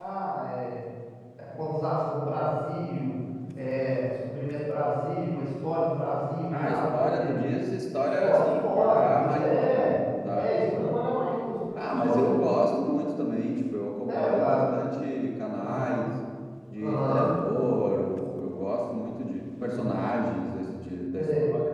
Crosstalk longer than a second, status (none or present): present